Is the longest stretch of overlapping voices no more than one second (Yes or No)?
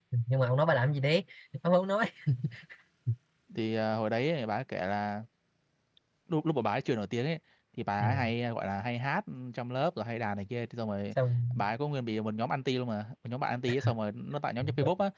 Yes